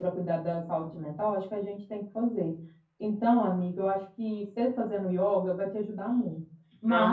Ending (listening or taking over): listening